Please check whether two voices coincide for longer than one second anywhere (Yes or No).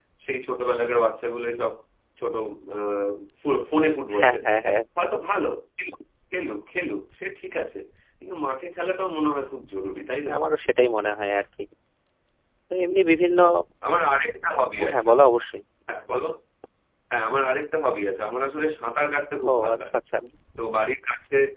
No